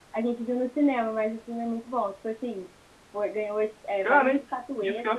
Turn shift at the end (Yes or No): Yes